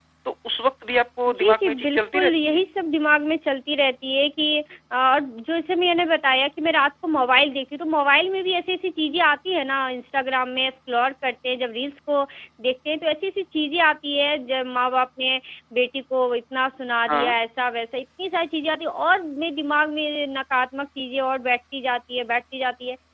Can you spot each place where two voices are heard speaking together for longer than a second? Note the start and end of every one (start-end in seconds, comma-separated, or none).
1.3-2.6